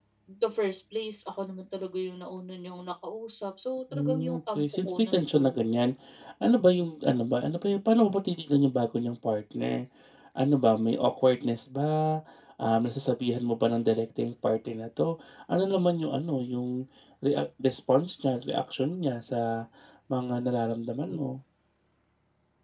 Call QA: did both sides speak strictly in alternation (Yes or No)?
No